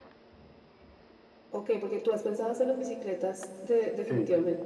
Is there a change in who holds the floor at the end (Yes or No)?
Yes